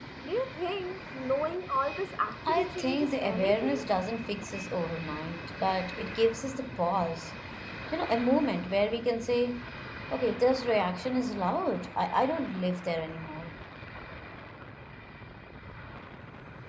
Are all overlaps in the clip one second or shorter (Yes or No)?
No